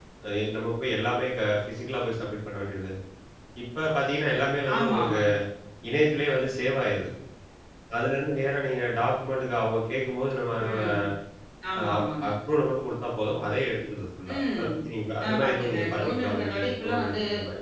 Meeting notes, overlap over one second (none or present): present